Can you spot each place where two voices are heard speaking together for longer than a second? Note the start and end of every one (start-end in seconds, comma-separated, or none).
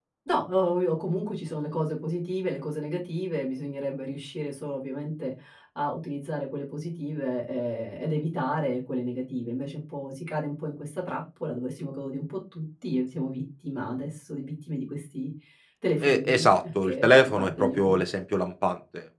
16.0-18.0